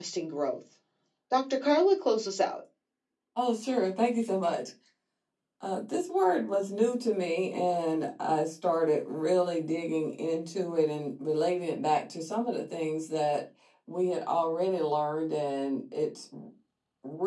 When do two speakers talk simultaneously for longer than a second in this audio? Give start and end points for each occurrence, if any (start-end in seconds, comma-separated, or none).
none